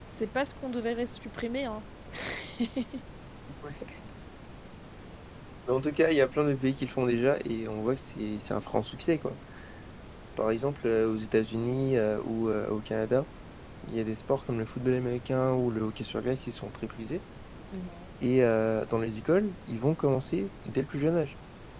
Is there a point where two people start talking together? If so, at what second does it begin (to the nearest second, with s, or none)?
none